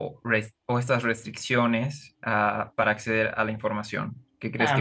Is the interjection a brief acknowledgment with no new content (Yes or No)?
No